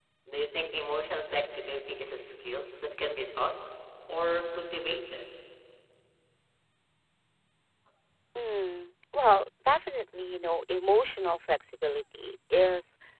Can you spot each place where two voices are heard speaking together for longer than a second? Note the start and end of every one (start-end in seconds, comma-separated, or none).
none